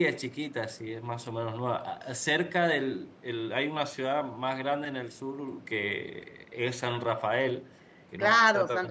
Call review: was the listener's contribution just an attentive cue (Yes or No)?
No